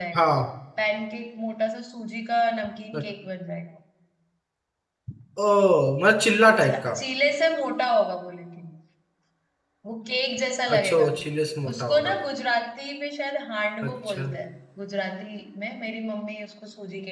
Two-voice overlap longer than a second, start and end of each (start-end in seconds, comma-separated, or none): none